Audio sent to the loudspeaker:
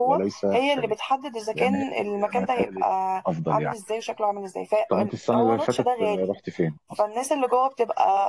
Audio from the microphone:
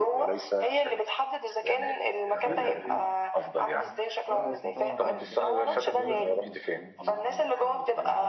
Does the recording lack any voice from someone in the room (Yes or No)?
No